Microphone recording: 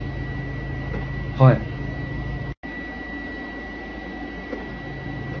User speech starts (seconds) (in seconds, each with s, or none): 1.3 s